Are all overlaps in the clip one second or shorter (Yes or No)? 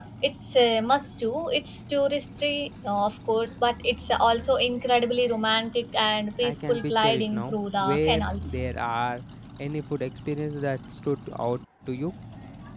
No